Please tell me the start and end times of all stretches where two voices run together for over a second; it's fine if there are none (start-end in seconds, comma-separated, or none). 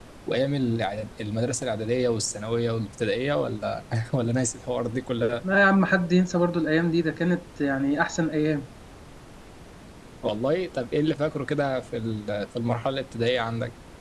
none